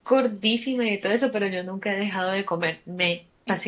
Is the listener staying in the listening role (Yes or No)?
No